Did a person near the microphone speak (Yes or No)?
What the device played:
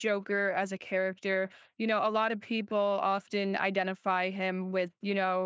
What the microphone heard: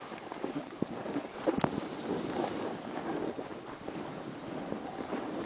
No